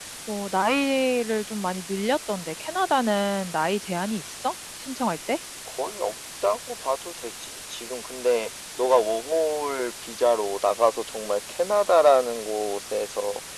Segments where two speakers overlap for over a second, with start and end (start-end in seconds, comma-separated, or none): none